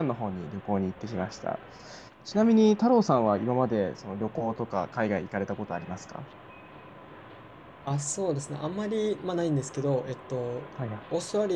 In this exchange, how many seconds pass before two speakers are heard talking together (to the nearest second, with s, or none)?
none